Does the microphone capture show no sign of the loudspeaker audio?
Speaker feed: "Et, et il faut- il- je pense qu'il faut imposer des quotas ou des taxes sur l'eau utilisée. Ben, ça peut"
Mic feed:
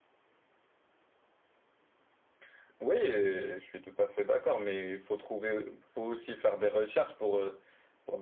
Yes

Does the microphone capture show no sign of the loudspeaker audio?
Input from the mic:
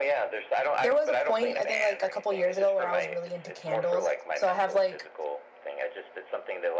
No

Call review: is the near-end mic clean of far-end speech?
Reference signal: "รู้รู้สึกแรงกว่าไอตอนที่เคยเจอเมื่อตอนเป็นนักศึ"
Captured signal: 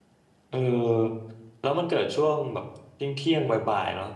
Yes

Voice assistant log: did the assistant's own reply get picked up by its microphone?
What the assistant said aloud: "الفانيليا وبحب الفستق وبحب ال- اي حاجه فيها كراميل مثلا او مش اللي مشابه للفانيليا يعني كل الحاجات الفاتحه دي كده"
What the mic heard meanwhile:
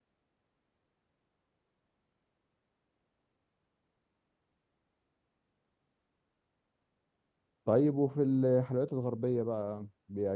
No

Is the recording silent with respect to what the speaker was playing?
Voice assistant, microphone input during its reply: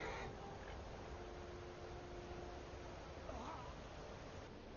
Yes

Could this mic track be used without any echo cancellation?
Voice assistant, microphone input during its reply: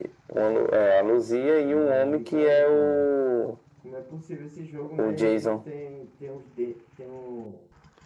No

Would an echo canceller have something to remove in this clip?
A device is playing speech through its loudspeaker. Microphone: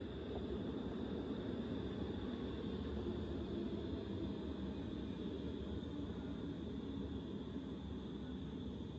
No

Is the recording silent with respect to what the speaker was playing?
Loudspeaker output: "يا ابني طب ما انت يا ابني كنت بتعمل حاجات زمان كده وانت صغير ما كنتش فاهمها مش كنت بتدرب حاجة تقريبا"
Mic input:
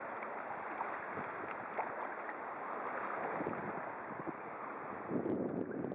Yes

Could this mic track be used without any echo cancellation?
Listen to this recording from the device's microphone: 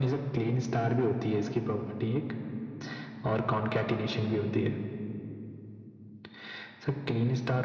No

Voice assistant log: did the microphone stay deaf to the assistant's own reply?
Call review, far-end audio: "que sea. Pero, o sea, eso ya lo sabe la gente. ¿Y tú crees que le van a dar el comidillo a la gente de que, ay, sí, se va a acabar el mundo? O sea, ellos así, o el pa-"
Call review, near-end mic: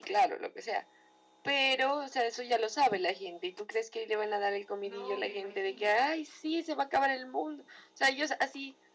No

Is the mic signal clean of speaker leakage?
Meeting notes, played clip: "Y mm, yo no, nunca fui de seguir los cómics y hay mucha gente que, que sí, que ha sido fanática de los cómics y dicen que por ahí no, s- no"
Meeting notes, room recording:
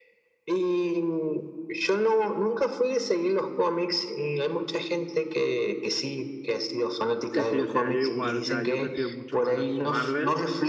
No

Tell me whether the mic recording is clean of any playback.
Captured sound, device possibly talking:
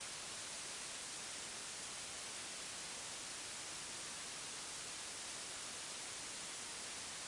Yes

